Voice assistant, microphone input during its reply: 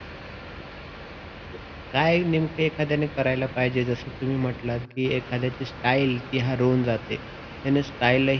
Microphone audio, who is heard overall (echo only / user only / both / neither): user only